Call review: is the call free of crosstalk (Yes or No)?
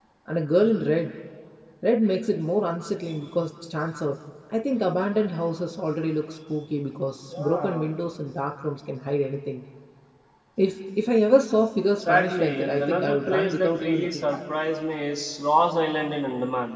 No